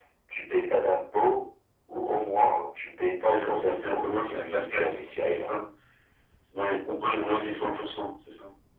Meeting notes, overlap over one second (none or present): present